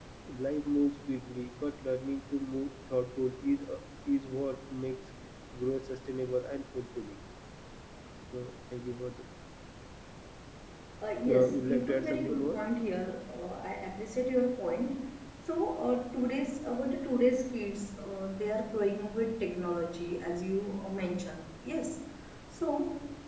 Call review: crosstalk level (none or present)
present